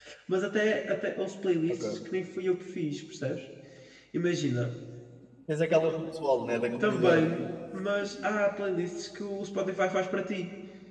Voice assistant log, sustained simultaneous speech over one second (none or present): none